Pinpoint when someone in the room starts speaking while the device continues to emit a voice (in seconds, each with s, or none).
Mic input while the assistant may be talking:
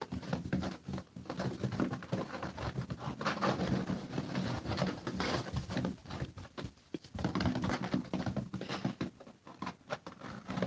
none